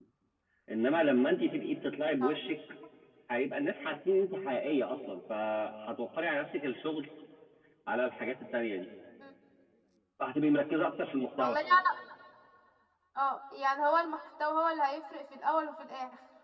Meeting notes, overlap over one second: none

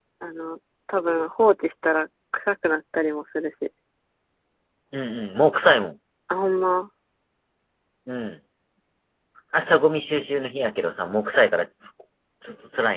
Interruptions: none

